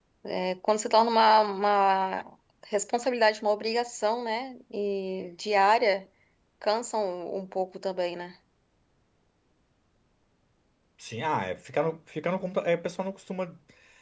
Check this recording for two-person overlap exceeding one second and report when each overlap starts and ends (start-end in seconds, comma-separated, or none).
none